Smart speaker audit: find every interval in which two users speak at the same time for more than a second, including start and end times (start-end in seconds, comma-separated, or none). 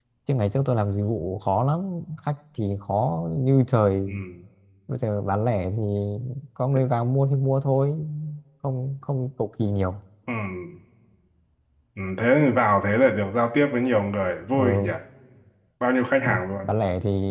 none